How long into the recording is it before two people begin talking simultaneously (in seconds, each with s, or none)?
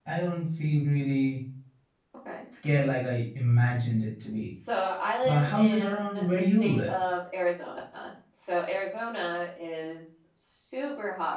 5.2 s